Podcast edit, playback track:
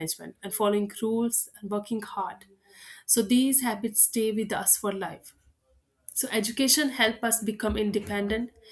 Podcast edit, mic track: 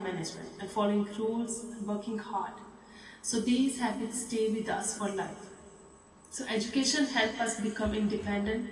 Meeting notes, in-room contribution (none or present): none